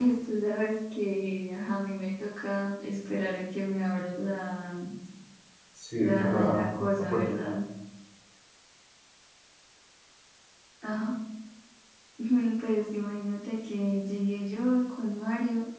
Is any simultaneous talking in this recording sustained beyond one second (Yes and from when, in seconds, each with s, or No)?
Yes, from 6.0 s